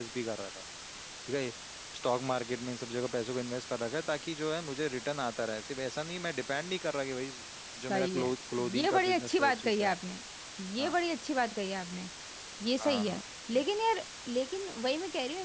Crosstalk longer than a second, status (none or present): present